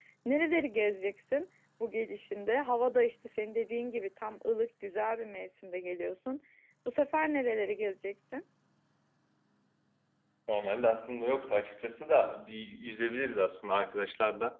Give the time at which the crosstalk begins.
none

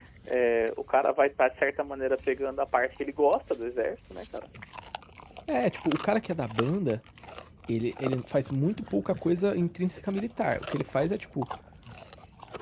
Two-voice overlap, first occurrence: none

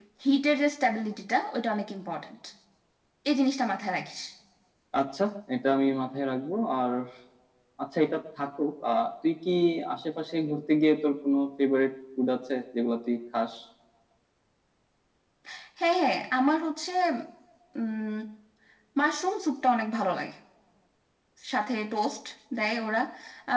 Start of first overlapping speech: none

